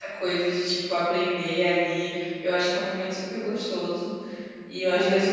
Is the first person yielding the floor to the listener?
No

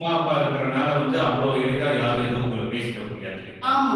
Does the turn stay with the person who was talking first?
No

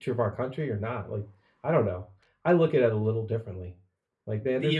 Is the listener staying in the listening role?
Yes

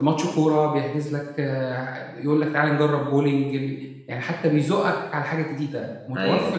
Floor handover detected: No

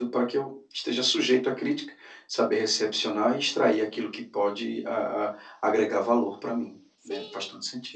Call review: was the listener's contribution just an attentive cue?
No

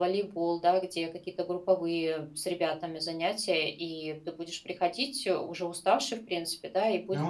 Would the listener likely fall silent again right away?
Yes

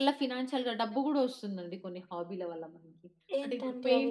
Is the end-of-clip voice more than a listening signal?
No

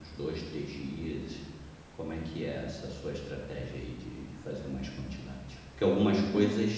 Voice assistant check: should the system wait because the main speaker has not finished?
Yes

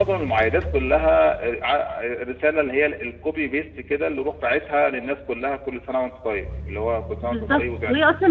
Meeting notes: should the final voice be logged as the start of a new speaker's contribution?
Yes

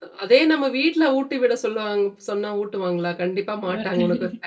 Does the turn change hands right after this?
No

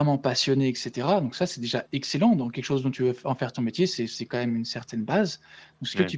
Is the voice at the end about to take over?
No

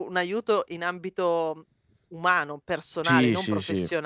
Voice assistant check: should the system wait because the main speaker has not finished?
No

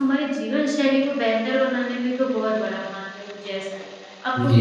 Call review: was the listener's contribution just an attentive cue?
No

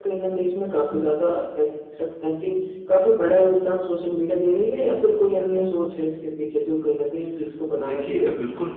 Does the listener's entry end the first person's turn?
Yes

